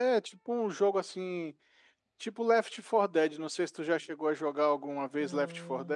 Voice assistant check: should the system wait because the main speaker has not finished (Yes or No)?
No